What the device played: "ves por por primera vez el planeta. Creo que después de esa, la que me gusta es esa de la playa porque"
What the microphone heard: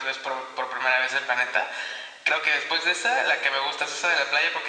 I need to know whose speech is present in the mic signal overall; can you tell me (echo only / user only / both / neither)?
echo only